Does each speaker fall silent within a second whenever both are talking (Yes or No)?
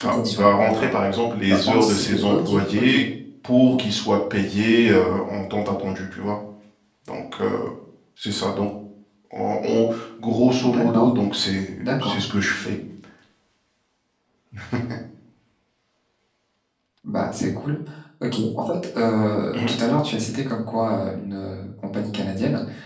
No